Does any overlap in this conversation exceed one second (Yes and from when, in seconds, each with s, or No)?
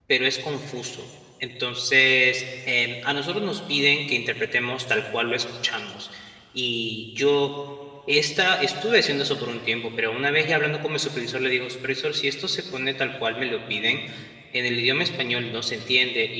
No